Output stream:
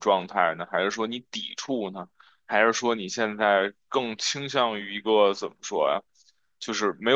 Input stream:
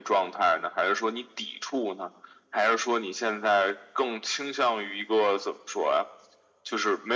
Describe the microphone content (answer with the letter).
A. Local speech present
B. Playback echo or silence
B